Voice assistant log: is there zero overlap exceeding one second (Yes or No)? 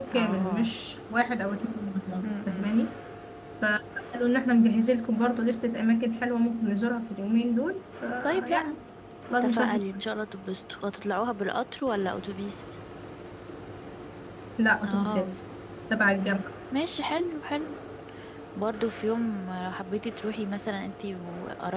Yes